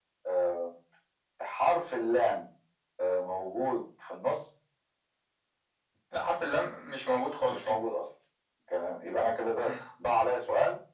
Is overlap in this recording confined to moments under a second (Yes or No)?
Yes